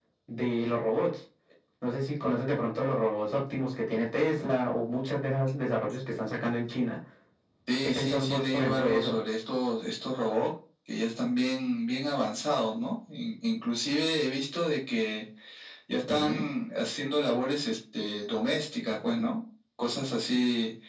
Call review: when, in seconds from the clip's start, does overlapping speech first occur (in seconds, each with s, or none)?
7.8 s